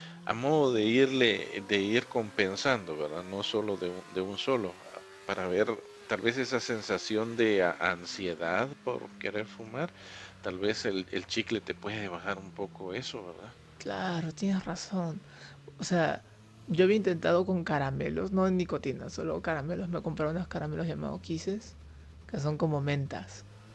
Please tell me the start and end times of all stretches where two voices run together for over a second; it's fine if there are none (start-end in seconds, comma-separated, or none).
none